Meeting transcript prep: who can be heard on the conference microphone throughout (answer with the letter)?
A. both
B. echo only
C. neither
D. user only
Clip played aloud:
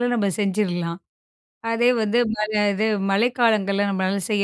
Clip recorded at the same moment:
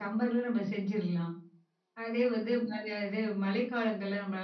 B